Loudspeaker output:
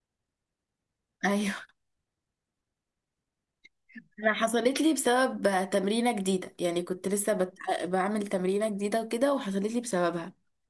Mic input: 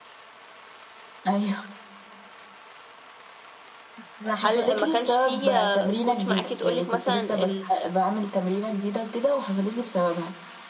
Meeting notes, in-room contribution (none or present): present